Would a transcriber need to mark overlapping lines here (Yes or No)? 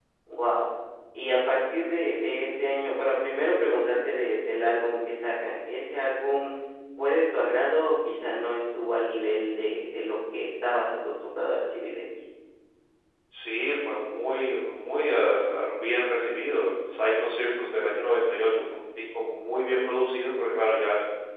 No